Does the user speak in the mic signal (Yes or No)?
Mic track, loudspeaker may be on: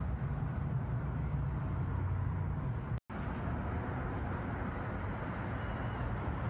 No